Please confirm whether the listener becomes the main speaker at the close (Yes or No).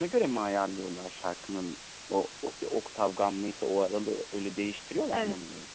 Yes